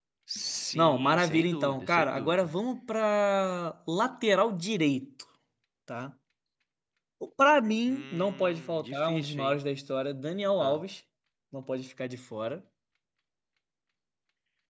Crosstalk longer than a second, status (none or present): present